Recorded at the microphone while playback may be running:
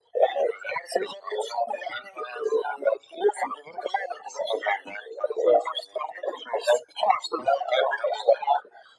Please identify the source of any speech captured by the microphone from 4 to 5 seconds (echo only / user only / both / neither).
echo only